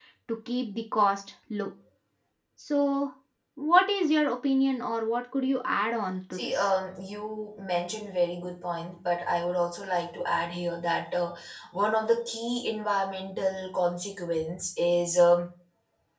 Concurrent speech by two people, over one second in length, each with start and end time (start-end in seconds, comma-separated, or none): none